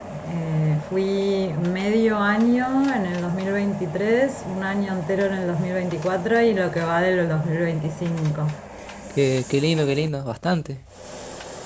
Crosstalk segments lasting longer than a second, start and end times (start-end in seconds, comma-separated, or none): none